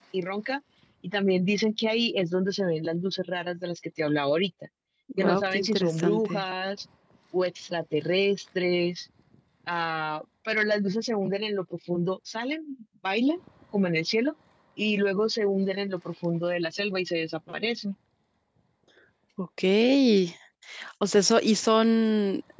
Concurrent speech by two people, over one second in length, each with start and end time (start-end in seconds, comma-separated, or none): 5.2-6.4